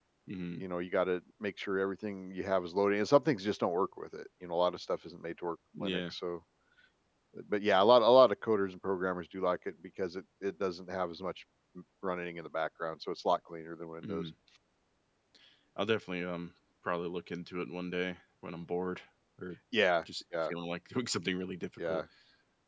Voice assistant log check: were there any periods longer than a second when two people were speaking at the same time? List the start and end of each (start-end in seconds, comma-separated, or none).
none